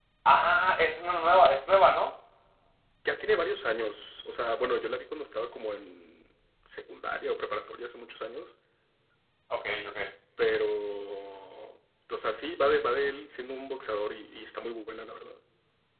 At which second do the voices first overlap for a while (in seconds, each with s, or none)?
none